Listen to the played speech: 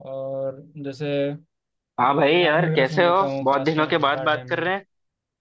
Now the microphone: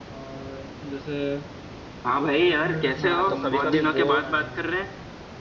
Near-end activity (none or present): present